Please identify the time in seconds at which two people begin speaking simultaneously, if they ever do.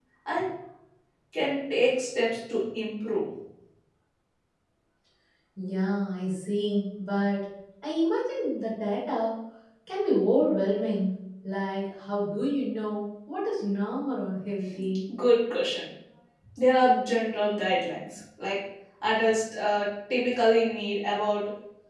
none

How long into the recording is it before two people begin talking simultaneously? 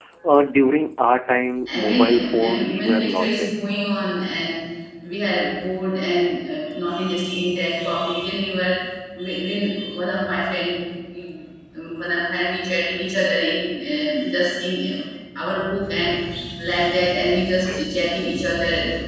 1.7 s

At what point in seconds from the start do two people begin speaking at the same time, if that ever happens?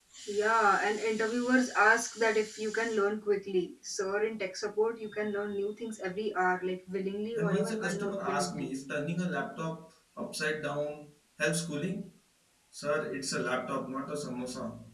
7.3 s

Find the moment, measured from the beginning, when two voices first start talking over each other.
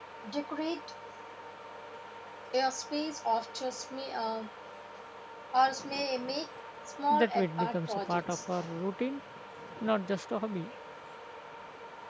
7.1 s

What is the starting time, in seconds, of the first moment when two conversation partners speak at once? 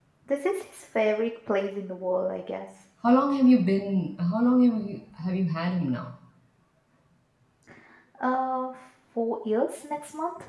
none

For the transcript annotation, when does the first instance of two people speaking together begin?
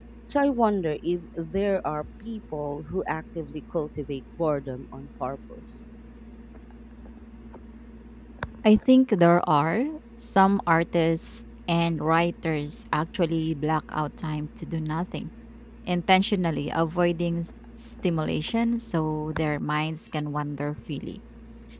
none

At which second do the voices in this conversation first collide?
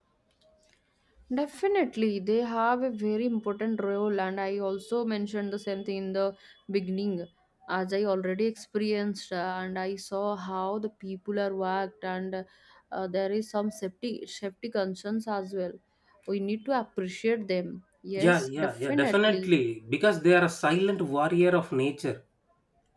18.2 s

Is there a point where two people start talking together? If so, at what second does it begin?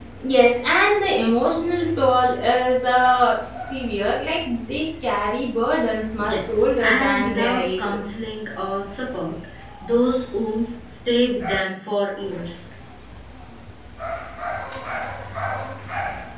6.2 s

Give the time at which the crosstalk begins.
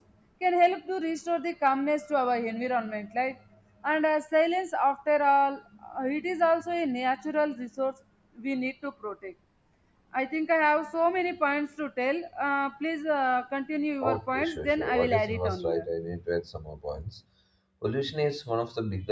14.0 s

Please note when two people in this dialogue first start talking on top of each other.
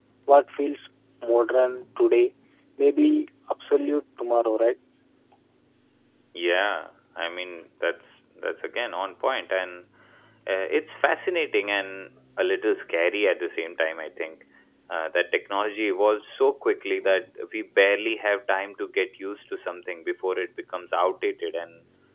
none

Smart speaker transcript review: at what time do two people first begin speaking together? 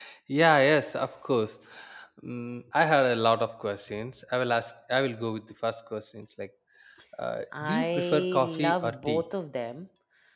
7.6 s

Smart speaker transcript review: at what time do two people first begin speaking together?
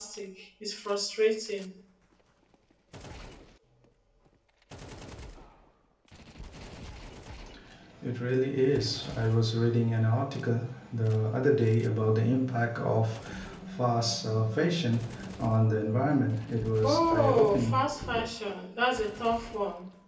16.8 s

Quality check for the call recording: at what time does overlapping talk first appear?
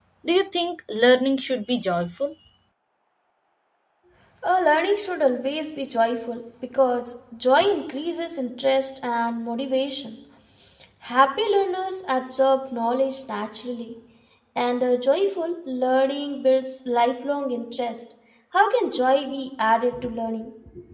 none

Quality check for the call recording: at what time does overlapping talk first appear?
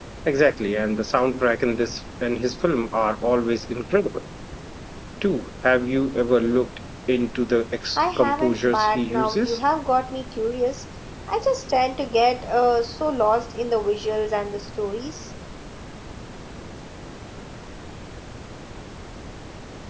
8.0 s

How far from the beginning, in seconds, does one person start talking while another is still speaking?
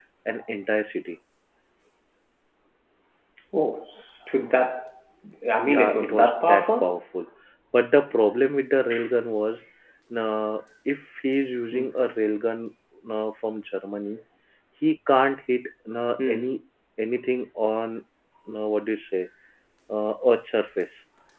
5.7 s

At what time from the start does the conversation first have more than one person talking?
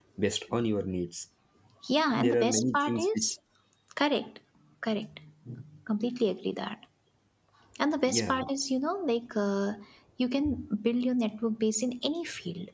2.1 s

